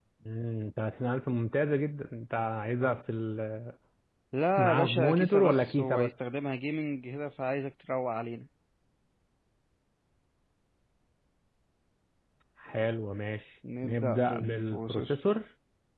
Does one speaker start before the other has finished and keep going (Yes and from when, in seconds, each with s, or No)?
Yes, from 4.6 s